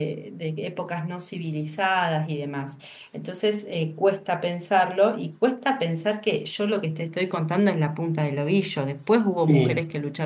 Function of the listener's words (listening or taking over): listening